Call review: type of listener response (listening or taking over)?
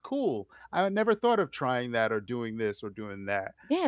taking over